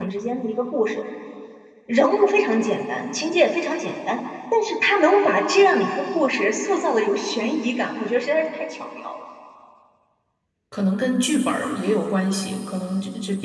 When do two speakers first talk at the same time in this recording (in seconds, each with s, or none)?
none